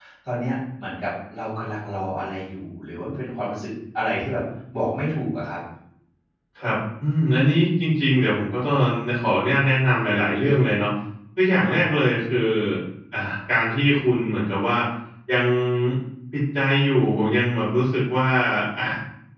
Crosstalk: none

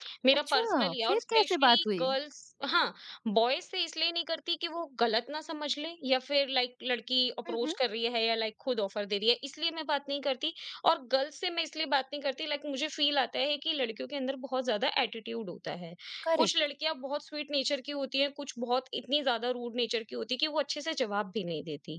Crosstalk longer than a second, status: present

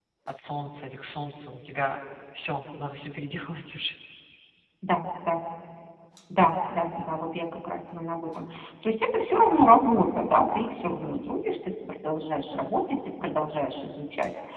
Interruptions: none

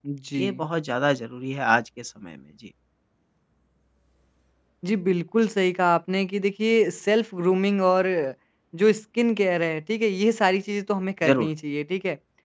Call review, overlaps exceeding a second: none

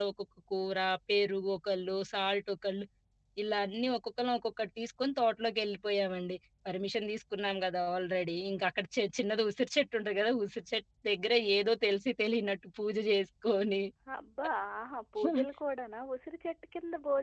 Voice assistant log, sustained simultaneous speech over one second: none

